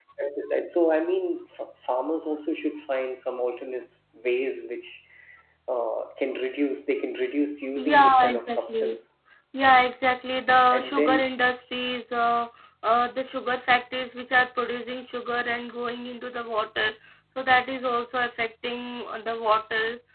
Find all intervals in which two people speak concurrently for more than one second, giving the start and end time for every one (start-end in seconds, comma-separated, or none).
7.8-9.0